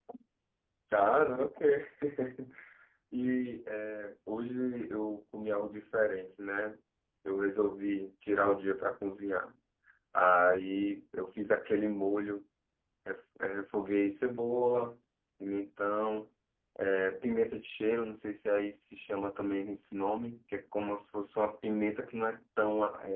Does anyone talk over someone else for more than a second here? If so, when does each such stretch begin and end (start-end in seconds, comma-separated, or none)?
none